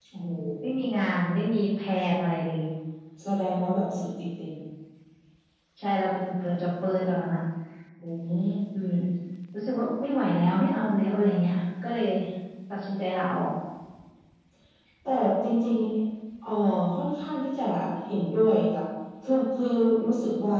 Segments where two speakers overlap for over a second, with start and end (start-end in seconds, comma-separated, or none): none